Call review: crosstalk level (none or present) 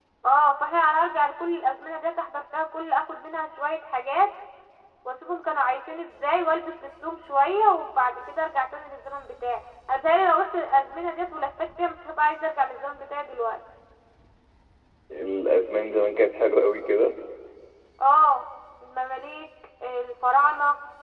none